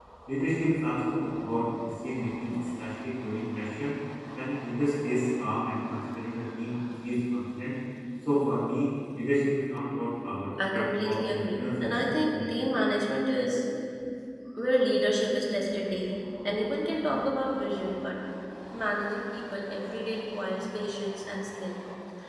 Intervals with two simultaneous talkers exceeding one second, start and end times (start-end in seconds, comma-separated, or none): 10.7-12.5